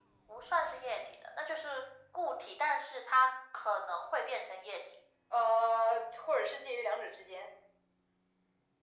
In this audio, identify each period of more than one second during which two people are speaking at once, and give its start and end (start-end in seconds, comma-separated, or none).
none